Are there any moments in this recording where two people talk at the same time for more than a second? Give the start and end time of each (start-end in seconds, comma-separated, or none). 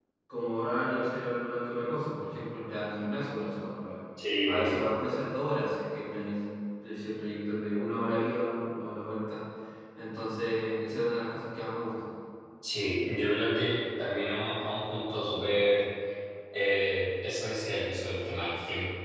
none